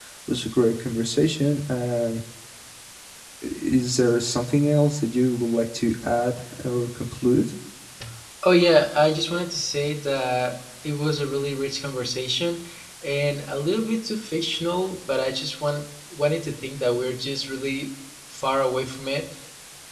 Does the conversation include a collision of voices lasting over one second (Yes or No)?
No